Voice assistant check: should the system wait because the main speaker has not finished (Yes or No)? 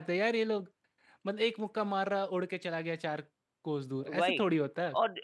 No